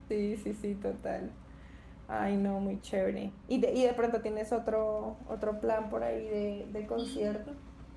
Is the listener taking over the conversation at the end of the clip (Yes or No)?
Yes